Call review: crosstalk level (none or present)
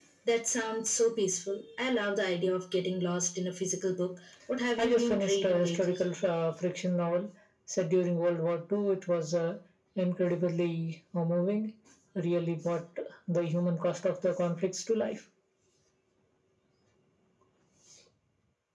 present